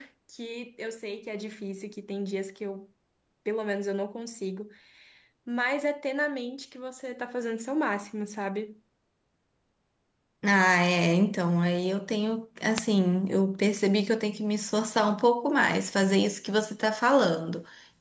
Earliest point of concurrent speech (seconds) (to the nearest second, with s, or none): none